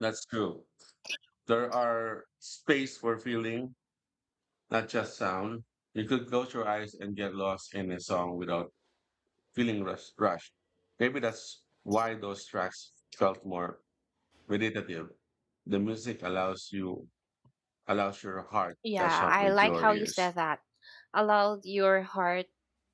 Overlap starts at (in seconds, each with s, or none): 18.8 s